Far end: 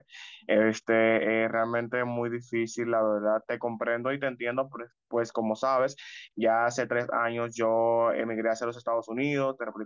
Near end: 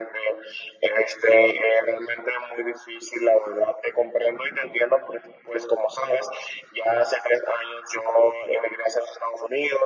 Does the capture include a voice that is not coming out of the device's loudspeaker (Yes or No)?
No